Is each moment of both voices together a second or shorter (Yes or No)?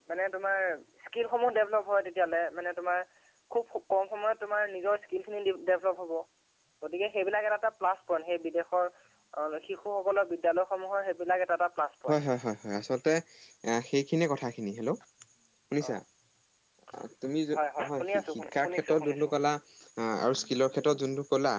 No